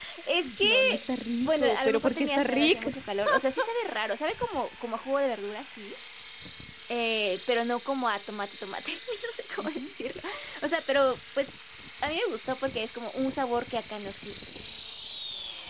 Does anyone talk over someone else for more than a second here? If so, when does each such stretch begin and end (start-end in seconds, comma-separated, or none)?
1.4-2.9